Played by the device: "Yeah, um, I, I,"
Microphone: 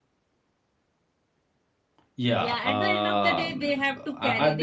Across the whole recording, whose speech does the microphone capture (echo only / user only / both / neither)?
both